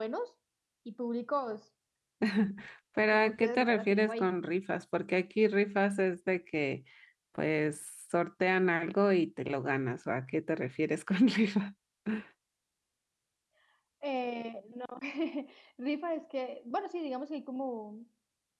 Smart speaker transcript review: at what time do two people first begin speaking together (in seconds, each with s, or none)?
3.0 s